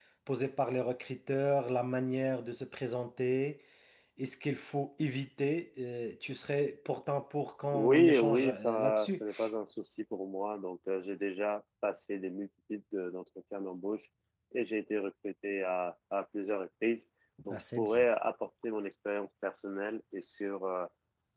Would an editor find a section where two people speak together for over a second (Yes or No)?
Yes